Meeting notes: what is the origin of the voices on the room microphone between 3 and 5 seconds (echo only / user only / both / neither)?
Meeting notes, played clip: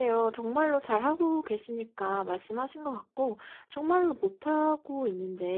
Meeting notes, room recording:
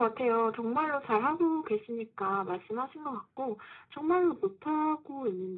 echo only